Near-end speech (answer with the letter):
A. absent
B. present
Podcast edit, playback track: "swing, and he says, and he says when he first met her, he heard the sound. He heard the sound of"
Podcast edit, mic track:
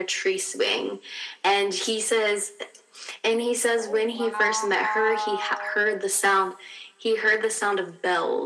B